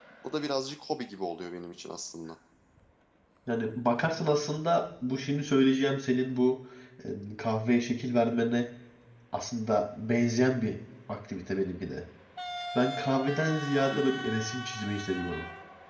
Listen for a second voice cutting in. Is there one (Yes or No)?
No